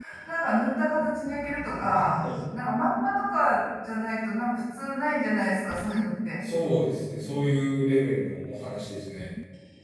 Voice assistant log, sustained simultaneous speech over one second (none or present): none